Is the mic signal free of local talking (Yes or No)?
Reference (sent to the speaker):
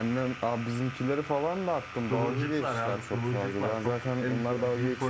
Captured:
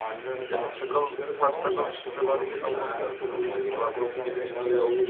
No